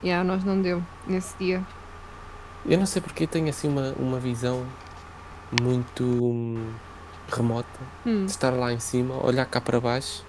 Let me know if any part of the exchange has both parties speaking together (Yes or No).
No